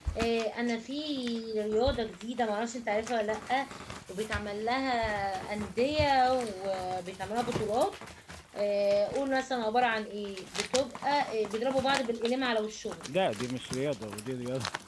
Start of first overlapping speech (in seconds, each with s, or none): none